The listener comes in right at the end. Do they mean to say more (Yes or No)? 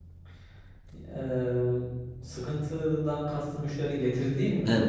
Yes